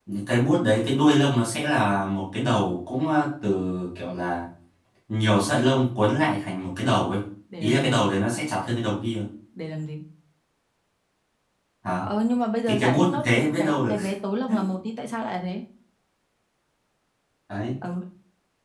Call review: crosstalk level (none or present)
present